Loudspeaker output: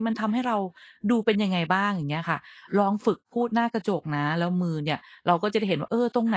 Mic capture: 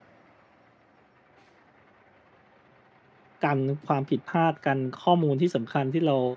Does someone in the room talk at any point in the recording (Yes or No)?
Yes